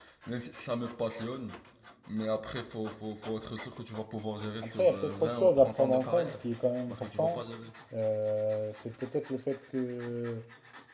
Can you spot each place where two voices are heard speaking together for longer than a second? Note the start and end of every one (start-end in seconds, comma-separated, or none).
4.6-6.4